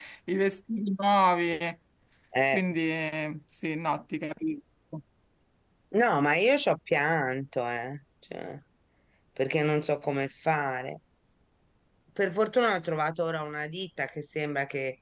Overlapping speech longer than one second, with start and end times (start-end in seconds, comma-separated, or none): none